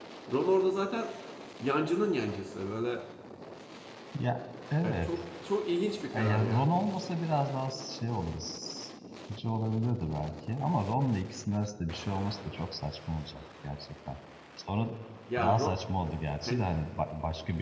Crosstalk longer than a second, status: none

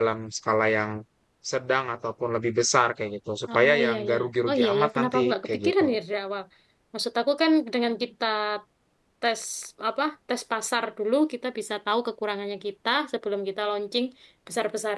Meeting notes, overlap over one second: present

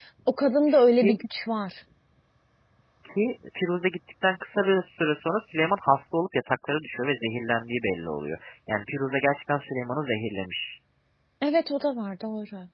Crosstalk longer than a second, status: none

